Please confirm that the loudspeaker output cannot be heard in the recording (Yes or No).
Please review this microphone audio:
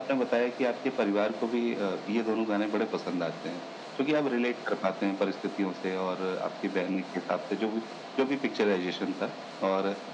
No